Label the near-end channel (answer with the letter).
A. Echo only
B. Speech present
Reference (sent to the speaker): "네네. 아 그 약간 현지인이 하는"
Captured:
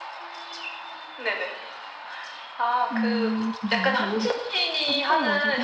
B